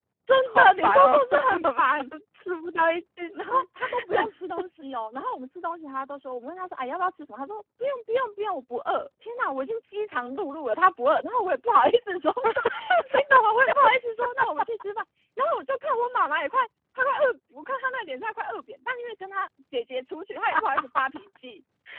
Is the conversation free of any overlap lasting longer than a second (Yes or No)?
No